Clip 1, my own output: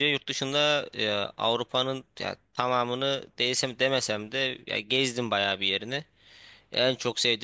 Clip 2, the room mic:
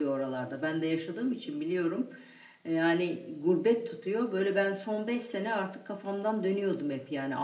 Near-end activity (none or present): present